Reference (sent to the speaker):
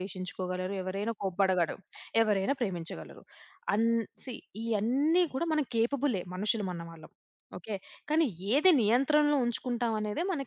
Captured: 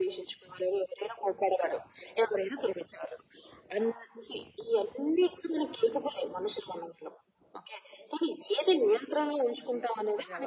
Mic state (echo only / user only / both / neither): both